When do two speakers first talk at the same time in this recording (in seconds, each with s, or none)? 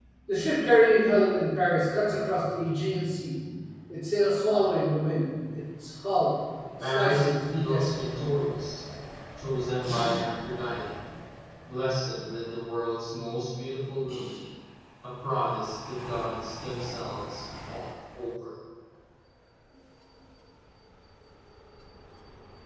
6.8 s